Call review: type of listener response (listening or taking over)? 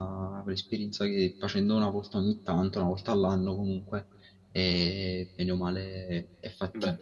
taking over